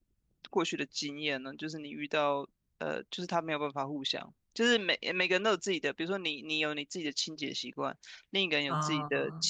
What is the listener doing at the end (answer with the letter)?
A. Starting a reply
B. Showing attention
B